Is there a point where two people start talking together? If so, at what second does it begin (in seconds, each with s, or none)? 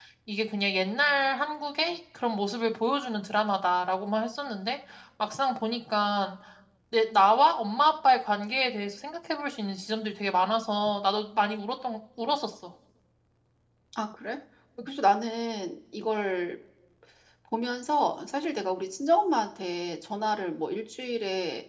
none